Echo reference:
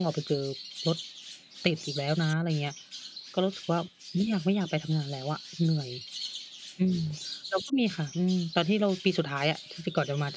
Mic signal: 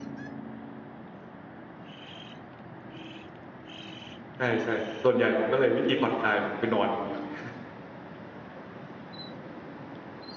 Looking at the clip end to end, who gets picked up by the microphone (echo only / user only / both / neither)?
user only